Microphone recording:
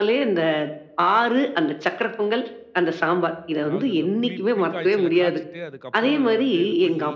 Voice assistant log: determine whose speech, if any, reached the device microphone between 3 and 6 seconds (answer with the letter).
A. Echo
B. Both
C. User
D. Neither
B